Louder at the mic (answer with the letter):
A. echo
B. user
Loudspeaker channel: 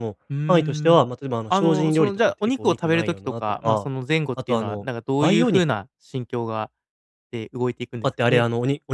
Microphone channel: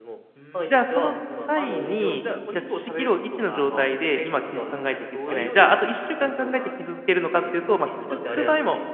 B